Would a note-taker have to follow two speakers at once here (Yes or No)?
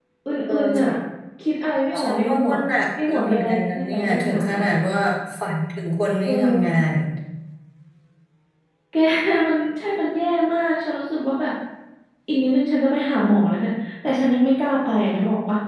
Yes